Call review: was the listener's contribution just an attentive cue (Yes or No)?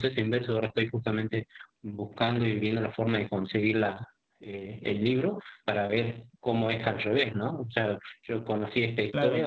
Yes